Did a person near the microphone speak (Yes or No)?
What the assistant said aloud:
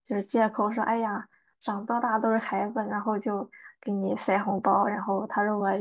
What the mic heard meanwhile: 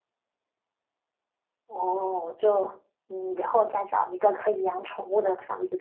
Yes